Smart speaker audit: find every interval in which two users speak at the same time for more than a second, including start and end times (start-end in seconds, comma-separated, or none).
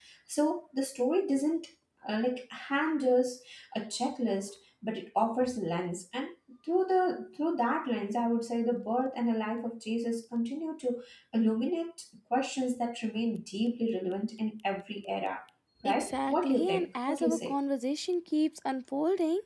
15.8-17.6